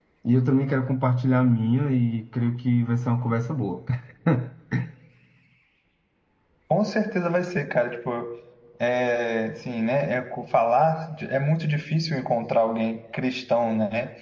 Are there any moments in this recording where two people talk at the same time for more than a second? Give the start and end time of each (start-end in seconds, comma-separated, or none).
none